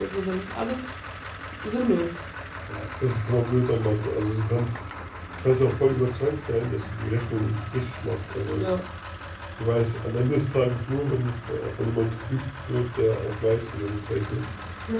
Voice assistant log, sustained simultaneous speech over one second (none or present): none